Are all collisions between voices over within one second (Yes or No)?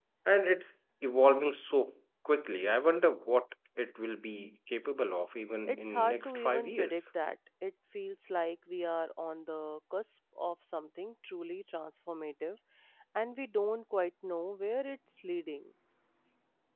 No